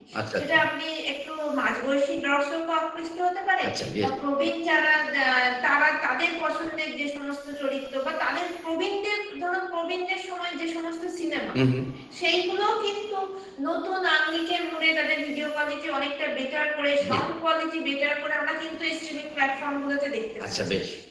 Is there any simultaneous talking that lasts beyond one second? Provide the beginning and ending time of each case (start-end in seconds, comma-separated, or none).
none